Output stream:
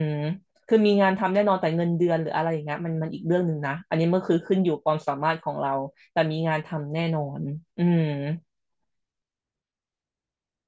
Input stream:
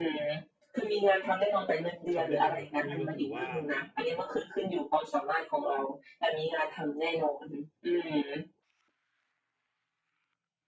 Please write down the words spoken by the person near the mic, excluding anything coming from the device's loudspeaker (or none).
คำแนะนำของคุณอุ้ยก็คือว่า